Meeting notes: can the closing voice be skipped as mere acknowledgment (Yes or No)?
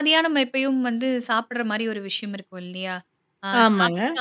Yes